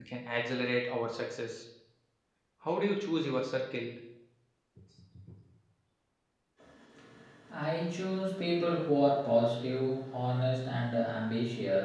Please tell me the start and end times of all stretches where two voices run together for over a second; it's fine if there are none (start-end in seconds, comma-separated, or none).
none